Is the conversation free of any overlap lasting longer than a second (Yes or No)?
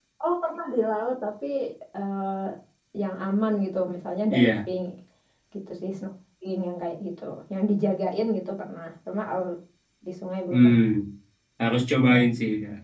Yes